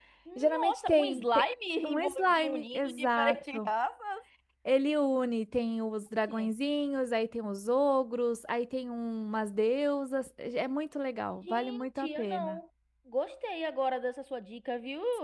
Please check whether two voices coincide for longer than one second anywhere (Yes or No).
Yes